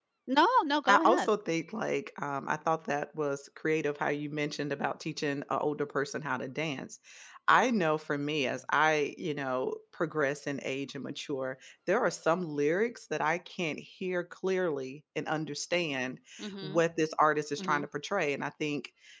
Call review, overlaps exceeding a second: none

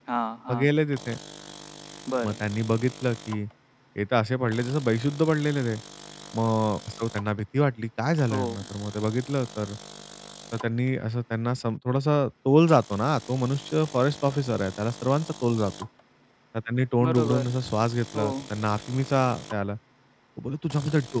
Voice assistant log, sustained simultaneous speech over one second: none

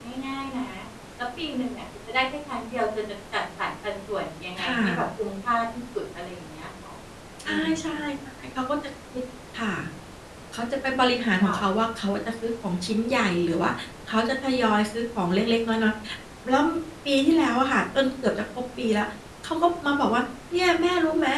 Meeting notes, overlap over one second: none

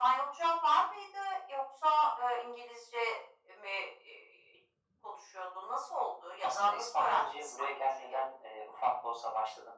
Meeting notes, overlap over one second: present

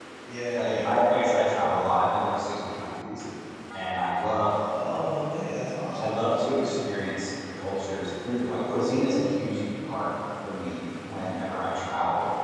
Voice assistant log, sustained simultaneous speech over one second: none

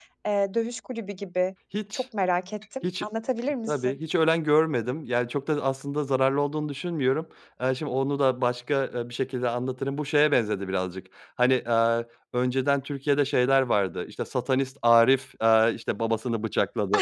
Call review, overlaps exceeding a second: none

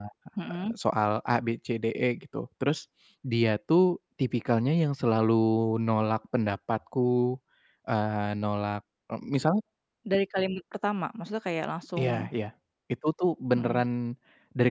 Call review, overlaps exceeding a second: none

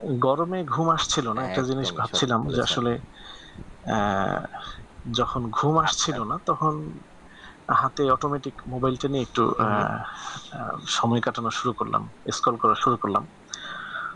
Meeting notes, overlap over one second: present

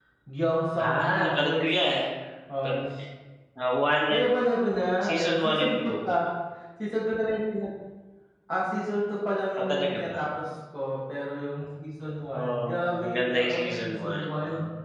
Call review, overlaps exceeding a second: present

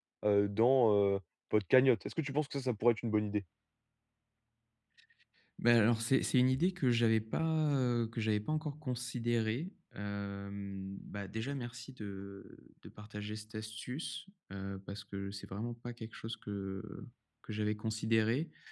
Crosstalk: none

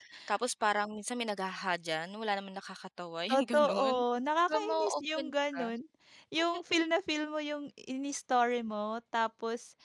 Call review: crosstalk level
present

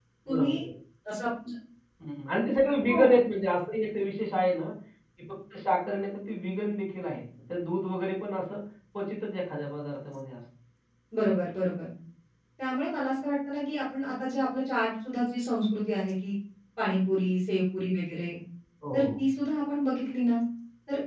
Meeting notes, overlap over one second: none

